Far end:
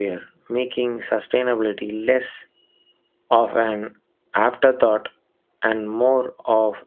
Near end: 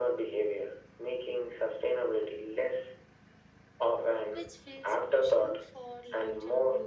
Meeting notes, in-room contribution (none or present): present